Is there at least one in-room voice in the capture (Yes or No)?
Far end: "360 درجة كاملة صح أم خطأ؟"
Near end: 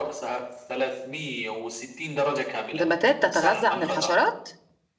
Yes